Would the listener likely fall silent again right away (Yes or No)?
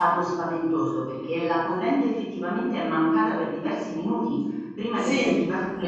Yes